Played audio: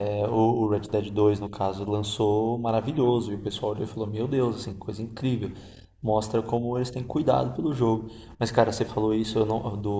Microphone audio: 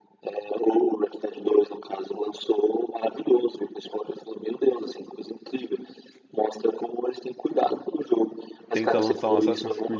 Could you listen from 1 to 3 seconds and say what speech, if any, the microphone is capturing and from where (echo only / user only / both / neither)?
echo only